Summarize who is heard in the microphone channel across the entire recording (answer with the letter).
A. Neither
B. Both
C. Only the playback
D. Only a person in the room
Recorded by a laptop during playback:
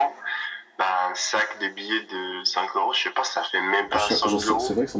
B